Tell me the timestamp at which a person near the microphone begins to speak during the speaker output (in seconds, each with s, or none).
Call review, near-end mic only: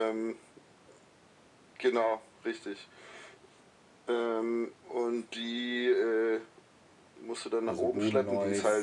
7.6 s